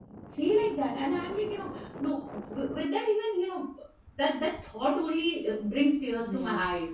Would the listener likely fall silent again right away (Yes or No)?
Yes